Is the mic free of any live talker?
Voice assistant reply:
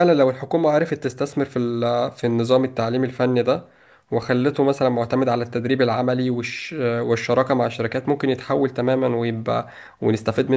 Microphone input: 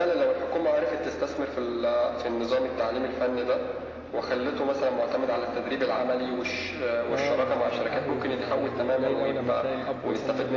No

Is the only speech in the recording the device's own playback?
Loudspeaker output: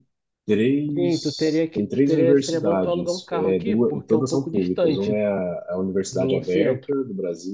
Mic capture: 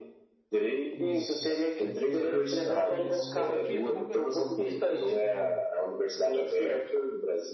No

